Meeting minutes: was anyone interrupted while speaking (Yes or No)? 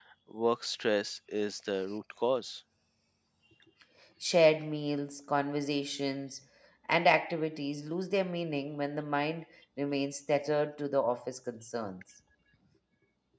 No